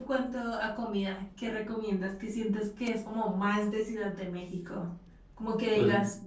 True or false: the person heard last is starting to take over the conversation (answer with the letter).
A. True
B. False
B